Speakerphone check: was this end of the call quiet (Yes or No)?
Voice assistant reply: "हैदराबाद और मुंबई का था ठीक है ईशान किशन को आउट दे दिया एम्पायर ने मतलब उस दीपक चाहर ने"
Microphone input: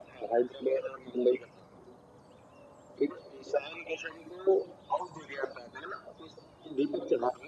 Yes